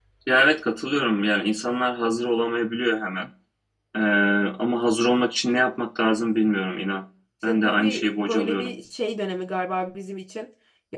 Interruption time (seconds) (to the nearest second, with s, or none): 7 s